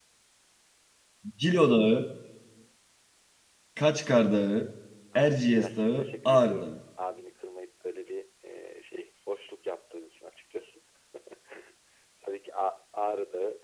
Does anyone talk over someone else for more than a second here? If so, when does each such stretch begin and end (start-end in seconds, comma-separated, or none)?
5.2-6.7